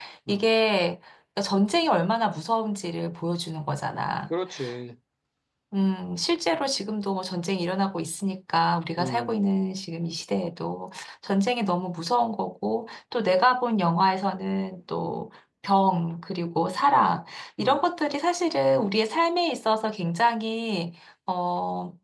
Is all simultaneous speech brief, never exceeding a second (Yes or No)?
Yes